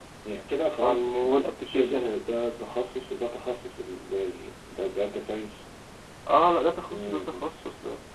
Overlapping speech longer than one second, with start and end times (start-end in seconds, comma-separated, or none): 0.8-2.1